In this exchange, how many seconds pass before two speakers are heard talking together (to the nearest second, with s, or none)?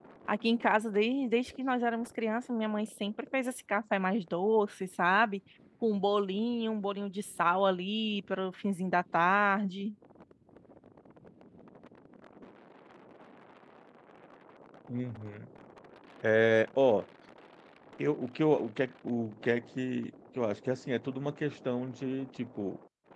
none